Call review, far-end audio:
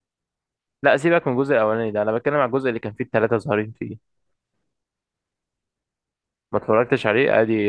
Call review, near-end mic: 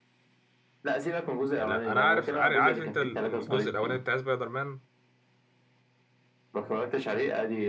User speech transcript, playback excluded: يعني لا انا عارف عارف, عارف انت ال- الجزء الاولاني بتاع سبايدر مان

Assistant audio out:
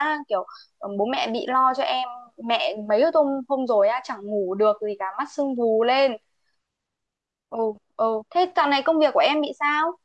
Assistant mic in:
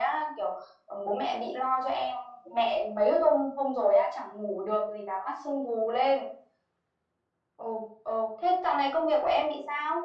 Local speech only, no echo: none

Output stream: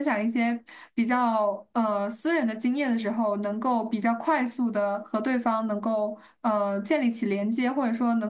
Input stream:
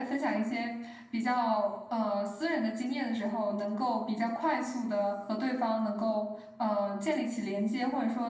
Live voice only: none

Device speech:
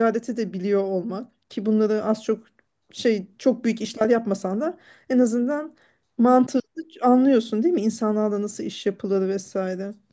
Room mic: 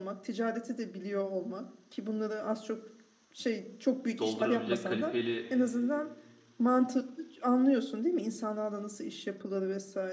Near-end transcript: doldurabilecek kalifeli

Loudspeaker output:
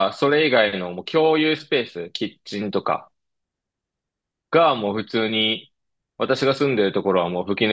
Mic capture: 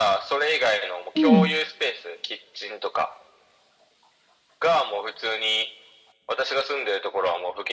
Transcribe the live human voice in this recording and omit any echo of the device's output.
うん。

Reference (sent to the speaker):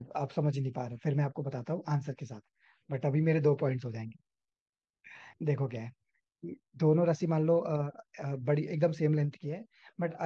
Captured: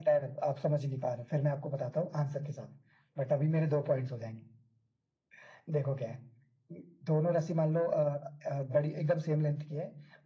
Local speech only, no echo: none

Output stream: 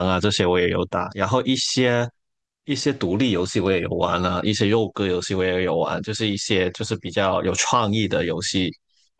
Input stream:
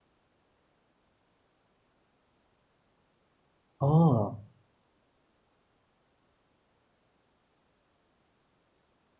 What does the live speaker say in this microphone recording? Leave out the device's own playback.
哦

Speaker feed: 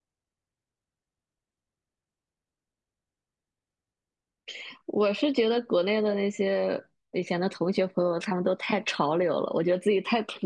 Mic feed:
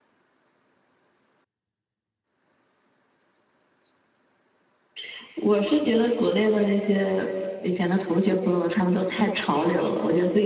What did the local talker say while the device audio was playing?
none

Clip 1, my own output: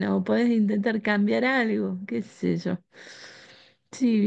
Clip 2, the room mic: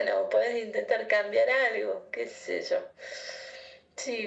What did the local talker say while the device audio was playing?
none

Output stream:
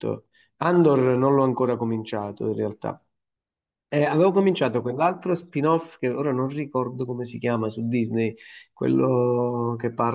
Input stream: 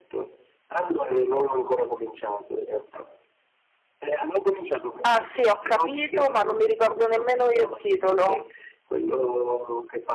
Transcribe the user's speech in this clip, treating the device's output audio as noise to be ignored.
ah sì, ho capito, ma non mi ricordo nemmeno io il titolo.

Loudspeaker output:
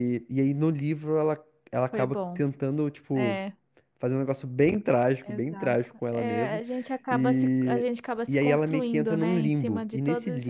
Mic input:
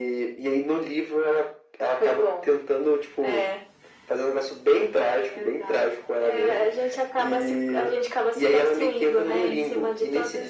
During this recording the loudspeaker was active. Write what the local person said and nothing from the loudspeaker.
none

